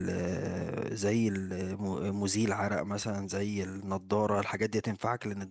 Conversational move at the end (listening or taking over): listening